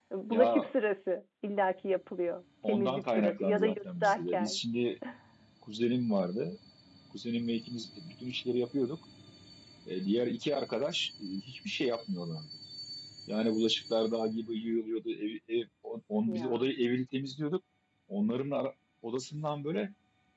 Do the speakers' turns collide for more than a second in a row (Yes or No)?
Yes